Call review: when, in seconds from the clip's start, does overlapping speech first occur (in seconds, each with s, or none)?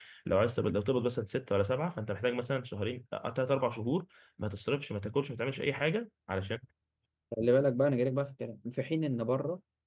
none